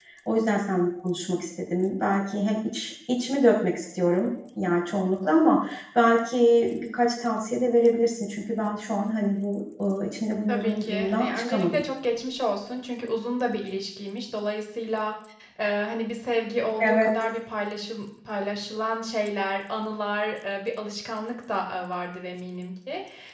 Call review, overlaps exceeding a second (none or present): present